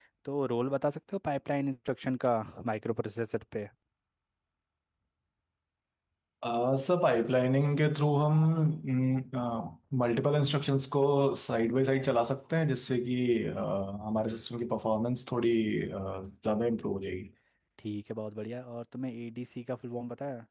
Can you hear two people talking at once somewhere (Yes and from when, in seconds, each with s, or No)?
No